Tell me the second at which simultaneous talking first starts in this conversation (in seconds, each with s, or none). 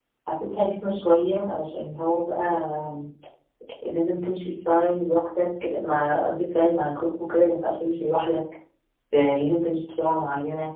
none